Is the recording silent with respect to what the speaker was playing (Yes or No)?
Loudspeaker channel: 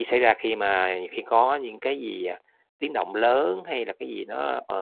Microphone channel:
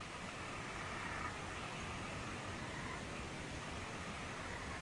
Yes